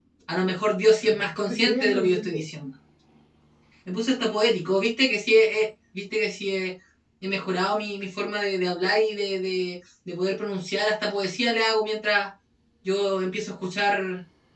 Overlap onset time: 1.0 s

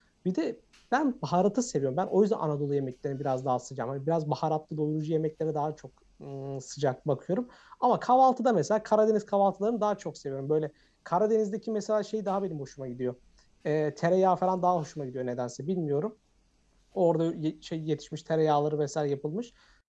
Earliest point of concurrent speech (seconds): none

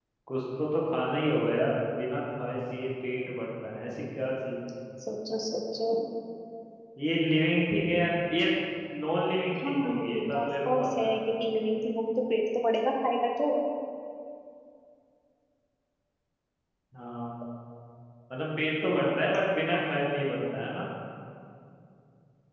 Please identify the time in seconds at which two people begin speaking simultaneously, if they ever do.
9.7 s

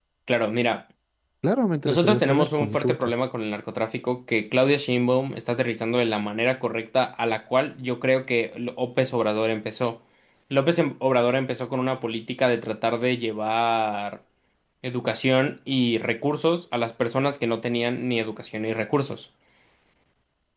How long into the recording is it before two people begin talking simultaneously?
1.9 s

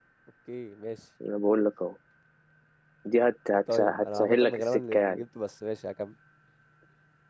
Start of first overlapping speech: 3.7 s

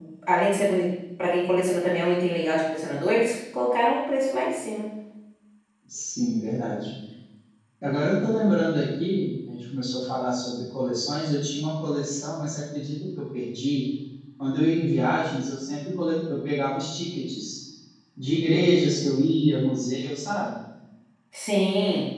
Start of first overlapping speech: none

